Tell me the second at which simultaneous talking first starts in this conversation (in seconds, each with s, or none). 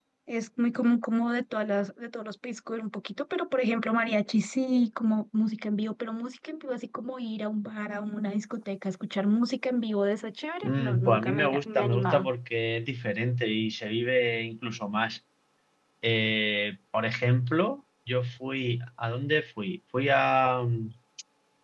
10.6 s